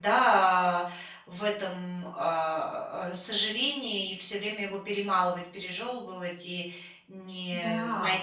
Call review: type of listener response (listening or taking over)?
listening